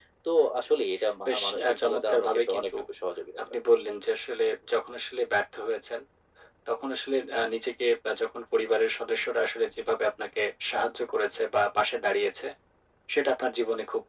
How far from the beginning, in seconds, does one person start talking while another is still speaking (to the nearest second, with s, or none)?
1 s